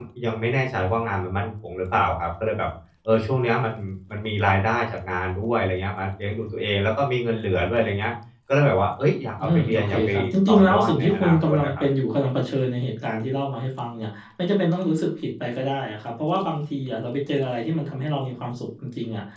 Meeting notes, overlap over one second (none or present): present